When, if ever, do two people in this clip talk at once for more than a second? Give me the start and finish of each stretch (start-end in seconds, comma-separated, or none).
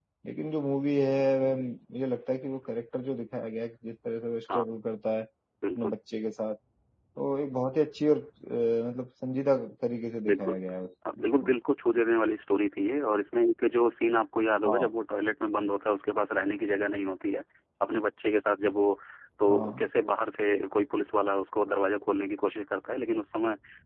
none